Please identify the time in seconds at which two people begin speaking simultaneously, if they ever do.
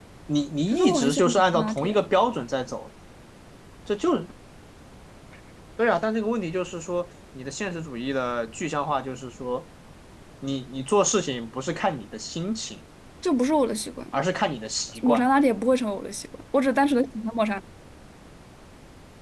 0.7 s

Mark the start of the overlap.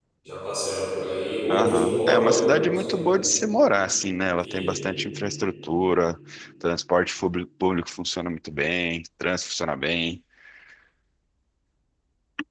1.5 s

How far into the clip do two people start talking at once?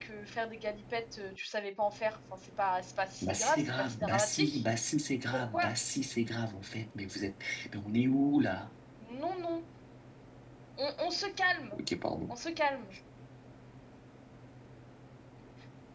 3.2 s

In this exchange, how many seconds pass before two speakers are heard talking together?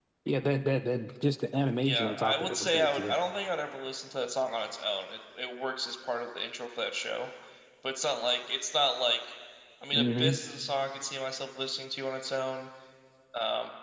1.8 s

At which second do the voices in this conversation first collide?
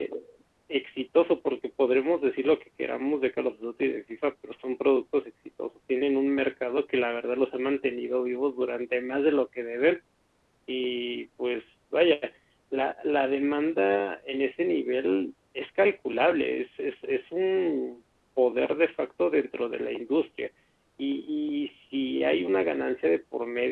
none

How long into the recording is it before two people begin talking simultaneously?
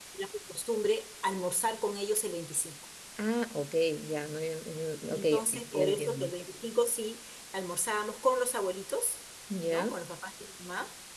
5.1 s

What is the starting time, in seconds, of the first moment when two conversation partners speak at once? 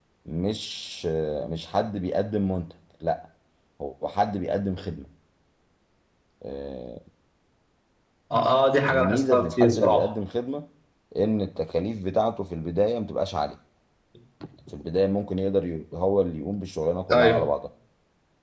8.9 s

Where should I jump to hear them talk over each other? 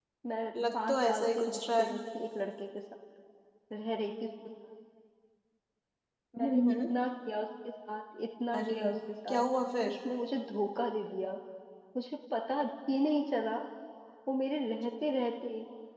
0.7 s

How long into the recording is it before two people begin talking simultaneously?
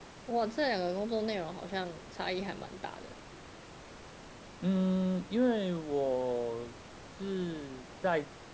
none

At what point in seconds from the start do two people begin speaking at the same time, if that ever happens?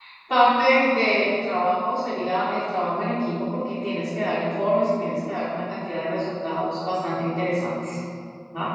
none

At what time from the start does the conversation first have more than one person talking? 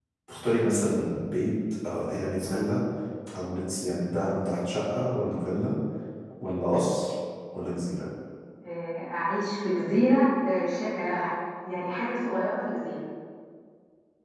none

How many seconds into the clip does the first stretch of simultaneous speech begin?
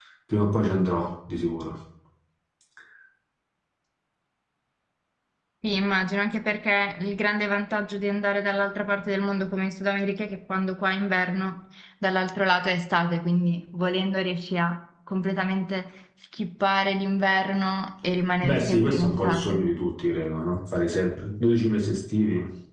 18.4 s

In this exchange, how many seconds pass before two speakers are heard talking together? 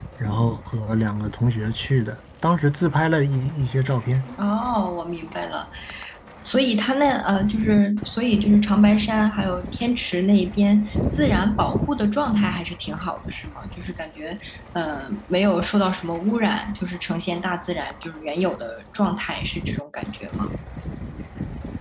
none

